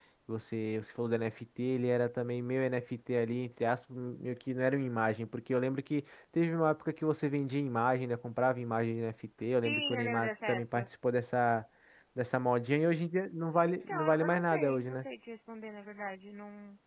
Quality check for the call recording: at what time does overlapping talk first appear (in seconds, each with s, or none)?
9.6 s